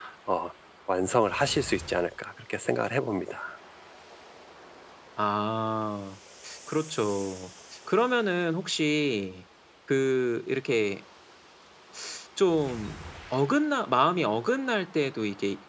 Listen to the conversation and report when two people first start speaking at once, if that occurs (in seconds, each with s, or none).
none